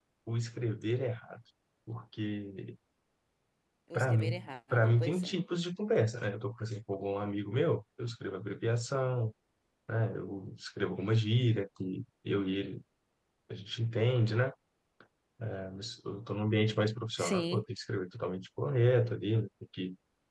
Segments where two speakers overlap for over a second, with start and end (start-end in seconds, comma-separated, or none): 3.9-5.3